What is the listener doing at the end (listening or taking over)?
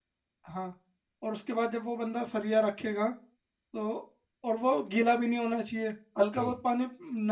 listening